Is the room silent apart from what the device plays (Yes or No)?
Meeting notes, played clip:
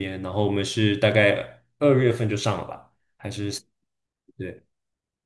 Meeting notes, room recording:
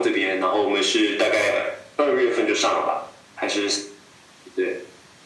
Yes